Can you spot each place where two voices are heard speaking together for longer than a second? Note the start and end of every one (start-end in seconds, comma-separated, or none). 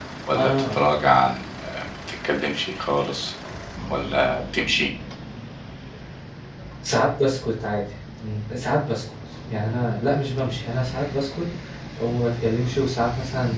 none